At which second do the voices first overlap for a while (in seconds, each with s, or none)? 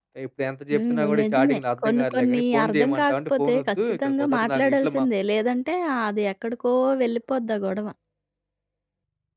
0.7 s